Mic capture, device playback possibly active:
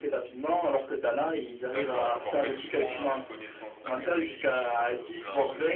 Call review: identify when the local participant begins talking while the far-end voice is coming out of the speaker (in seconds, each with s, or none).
1.7 s